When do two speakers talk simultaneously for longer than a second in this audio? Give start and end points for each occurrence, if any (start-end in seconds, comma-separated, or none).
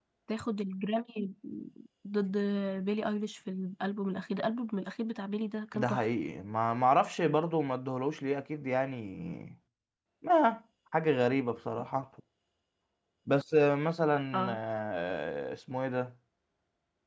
none